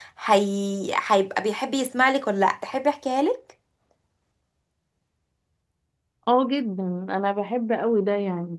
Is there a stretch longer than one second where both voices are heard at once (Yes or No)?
No